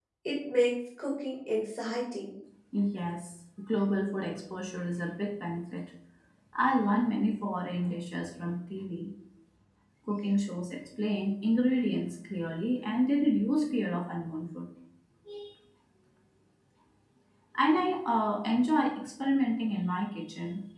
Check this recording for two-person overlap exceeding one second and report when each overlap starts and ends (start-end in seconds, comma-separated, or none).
none